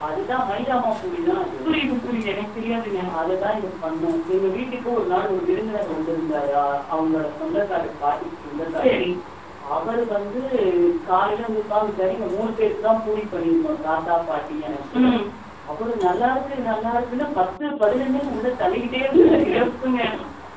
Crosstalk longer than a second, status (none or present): none